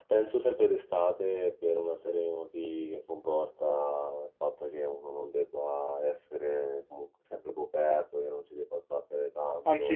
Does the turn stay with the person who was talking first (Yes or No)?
No